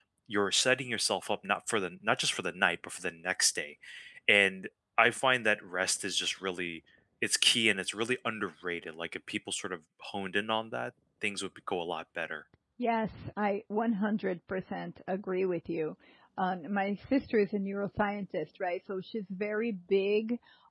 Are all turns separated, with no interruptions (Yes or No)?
Yes